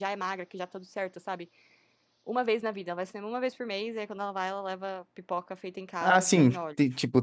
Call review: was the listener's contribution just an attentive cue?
No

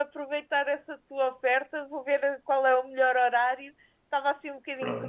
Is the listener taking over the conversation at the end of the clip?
No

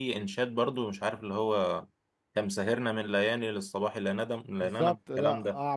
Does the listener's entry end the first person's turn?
Yes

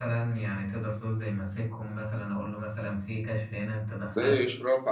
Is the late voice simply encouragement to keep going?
No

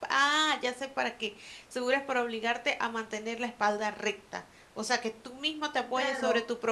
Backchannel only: No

